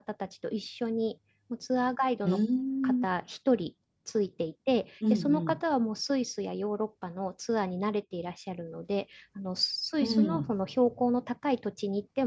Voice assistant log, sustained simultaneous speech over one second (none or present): none